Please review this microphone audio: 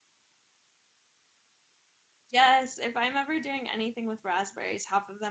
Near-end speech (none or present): present